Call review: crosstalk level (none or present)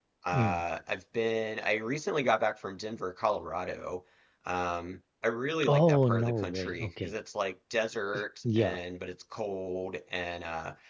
present